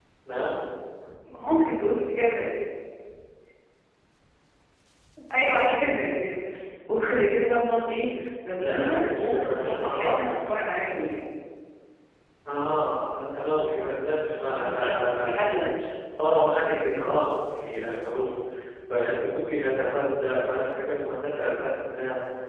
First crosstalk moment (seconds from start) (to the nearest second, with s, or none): 9 s